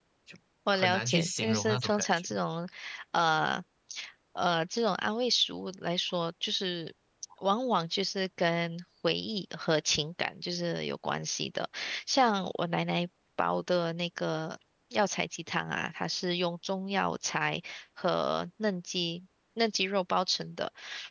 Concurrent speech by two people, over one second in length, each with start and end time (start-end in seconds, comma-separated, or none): 0.7-2.3